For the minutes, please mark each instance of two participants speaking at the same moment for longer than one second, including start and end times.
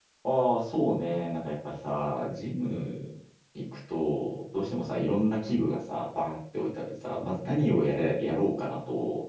none

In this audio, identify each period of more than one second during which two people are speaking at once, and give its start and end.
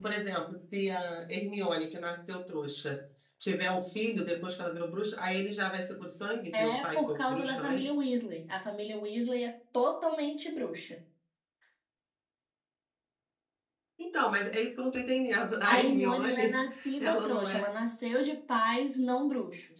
6.5-7.8, 15.7-17.6

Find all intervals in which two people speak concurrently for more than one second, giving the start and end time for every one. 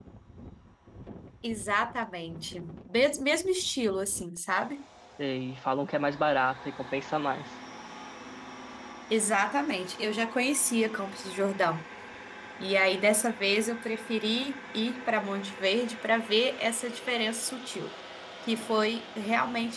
none

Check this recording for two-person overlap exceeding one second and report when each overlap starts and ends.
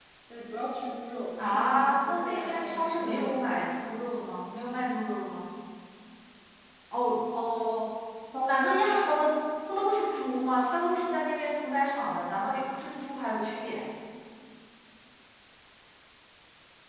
1.4-3.4

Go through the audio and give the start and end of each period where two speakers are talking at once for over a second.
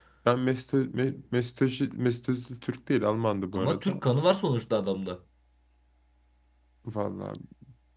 none

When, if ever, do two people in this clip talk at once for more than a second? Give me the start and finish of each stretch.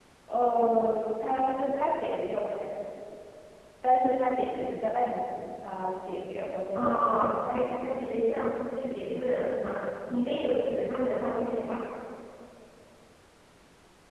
6.8-8.0

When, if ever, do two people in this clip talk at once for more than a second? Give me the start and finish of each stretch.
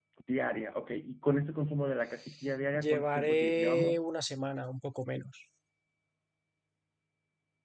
2.7-4.0

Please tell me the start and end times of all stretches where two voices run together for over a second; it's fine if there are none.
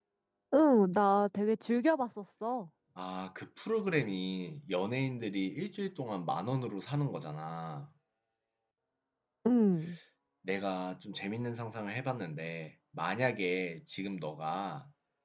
none

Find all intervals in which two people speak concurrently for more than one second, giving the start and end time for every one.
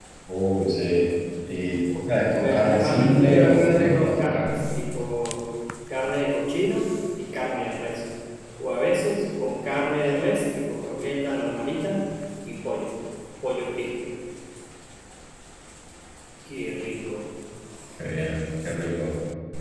2.4-4.6

